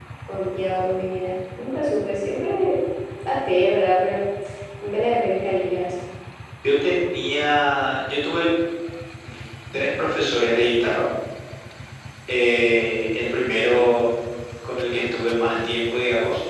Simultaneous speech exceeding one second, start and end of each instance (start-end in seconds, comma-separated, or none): none